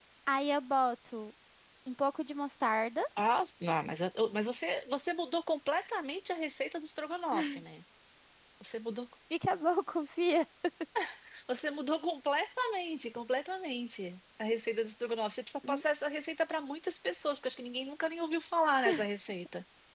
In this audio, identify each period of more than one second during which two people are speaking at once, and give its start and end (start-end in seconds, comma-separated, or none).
none